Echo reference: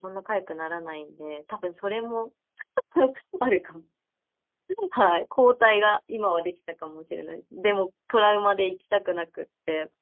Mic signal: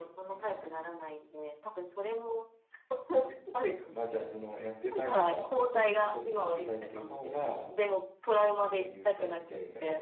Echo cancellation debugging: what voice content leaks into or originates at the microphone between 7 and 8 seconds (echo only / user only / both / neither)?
both